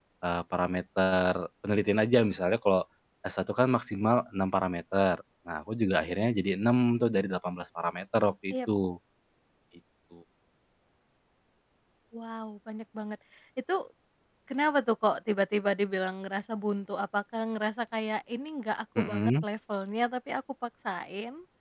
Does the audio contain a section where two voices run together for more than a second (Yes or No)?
No